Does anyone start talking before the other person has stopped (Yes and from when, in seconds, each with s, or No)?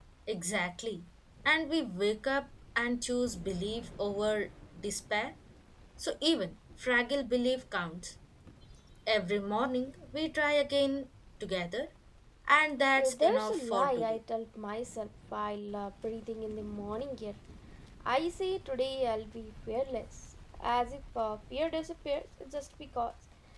Yes, from 13.0 s